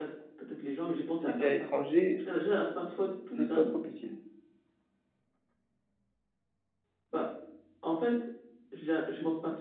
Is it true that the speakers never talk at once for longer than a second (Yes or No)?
Yes